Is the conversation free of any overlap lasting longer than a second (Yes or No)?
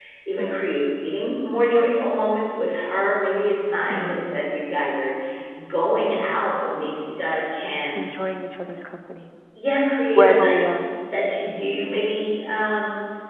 Yes